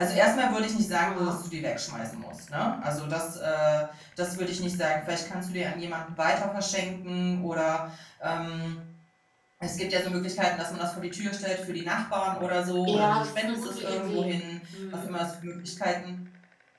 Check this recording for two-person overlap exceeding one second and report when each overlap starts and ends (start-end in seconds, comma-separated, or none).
12.9-14.3